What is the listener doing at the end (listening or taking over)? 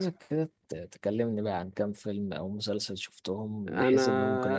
taking over